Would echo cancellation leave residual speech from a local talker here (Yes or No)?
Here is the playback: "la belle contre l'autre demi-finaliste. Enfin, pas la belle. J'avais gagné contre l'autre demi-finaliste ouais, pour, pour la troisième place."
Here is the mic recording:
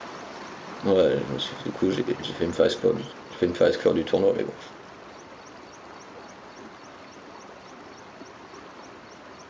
Yes